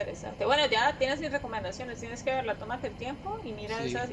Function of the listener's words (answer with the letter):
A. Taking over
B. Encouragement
B